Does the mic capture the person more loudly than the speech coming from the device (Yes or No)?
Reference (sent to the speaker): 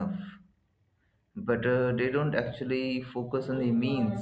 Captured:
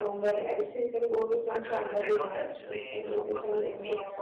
Yes